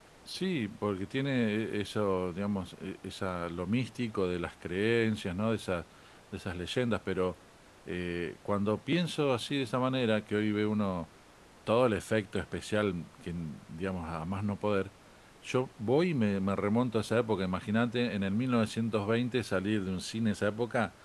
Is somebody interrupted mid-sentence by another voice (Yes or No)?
No